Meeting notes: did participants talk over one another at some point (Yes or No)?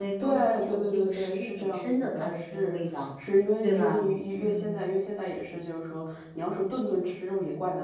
Yes